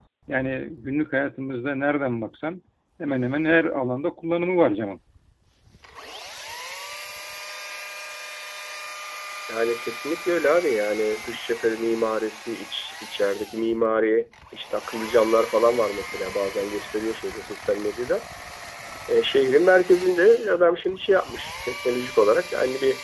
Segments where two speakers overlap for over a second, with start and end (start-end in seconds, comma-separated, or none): none